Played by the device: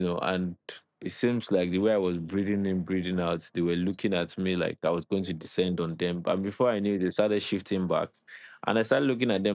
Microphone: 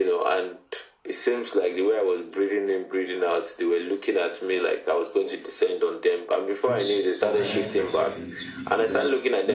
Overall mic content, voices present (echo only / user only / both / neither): both